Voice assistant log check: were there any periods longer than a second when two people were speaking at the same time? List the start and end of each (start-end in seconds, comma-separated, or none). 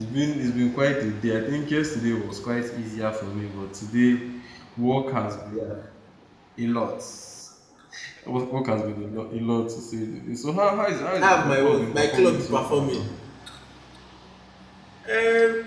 11.2-13.1